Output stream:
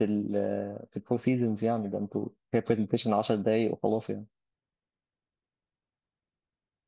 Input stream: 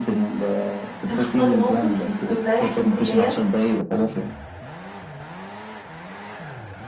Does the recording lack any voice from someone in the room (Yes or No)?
No